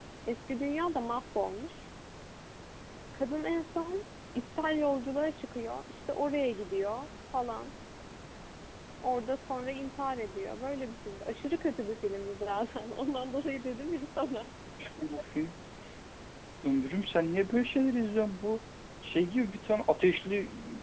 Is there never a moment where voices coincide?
Yes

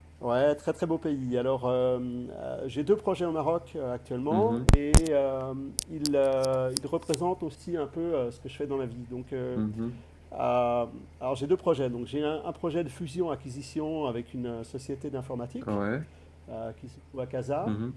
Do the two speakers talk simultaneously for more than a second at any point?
No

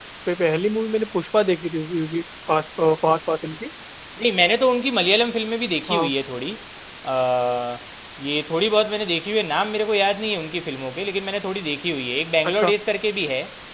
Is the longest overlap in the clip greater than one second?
No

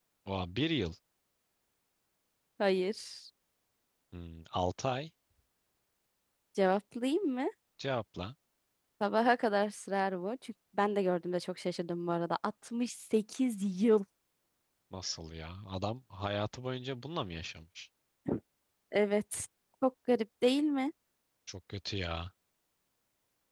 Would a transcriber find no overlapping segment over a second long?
Yes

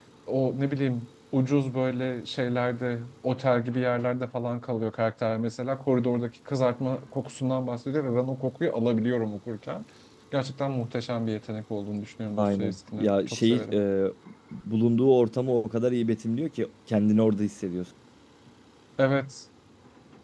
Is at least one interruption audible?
Yes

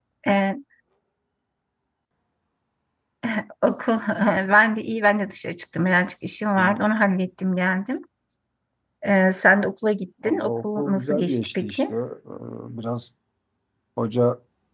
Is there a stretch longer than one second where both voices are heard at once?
Yes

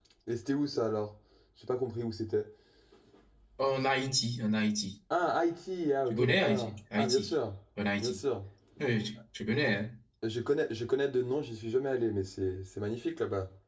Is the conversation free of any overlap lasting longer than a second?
No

